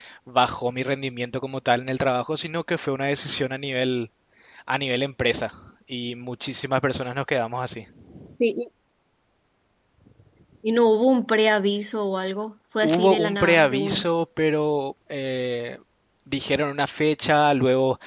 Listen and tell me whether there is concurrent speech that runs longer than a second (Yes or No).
Yes